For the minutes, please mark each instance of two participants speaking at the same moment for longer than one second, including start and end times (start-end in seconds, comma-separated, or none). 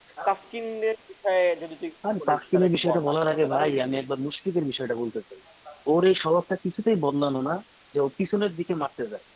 2.2-4.0